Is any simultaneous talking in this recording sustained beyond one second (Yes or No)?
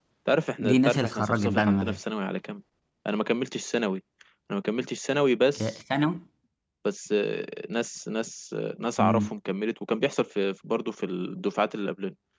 Yes